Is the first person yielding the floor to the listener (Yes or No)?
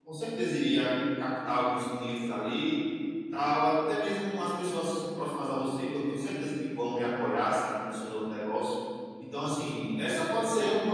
No